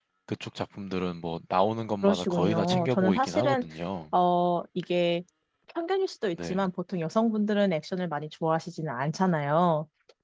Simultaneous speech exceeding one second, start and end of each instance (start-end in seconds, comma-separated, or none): 2.0-3.6